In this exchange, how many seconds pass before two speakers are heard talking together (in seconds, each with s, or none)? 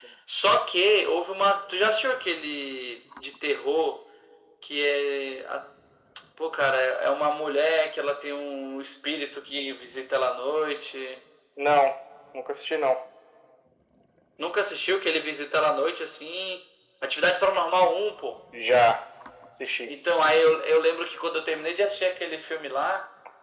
none